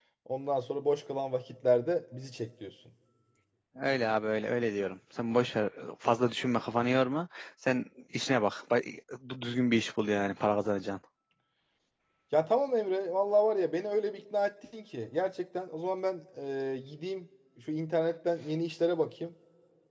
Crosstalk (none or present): none